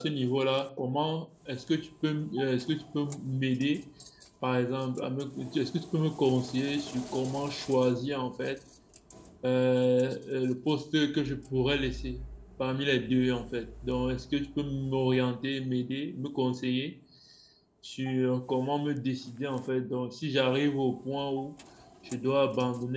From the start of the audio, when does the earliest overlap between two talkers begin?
none

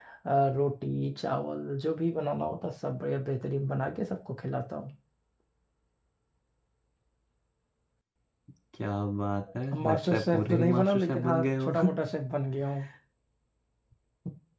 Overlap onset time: 9.7 s

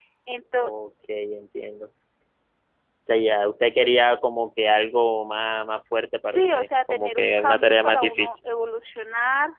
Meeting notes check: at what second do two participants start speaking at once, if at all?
6.3 s

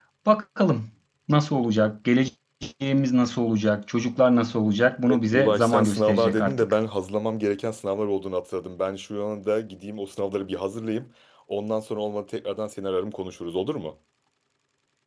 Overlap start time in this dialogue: 5.1 s

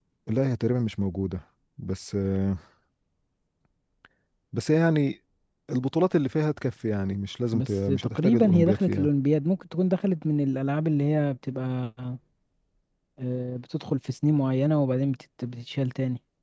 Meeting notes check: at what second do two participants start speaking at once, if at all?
7.5 s

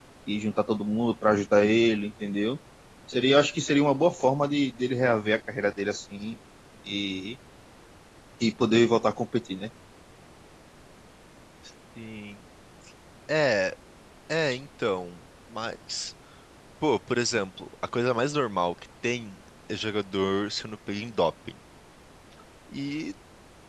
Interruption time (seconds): none

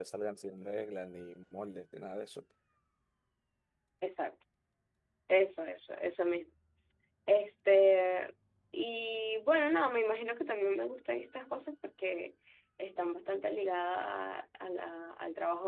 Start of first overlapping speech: none

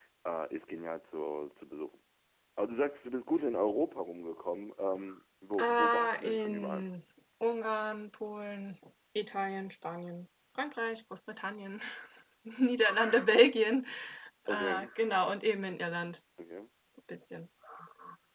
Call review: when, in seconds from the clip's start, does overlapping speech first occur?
5.6 s

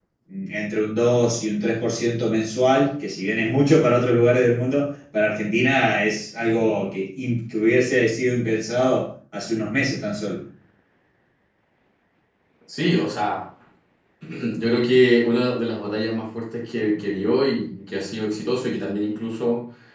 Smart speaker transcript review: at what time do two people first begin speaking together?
none

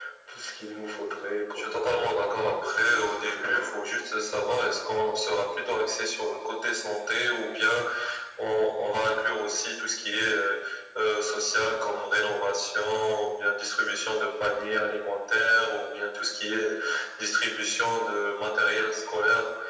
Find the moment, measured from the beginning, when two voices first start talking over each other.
1.6 s

